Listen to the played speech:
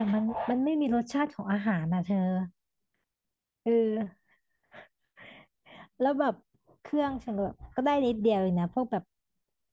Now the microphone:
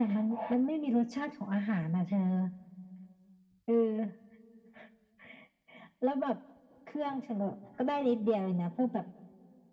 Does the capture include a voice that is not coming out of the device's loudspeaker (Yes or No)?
No